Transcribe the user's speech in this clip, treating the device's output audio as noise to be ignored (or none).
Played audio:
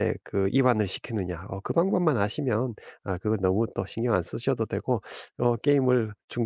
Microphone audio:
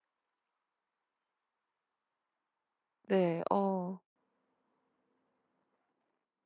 네. 어.